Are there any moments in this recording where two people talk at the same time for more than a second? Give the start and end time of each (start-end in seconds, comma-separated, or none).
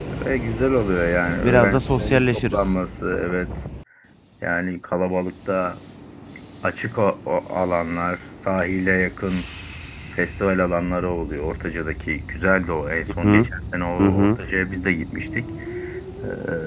1.4-2.7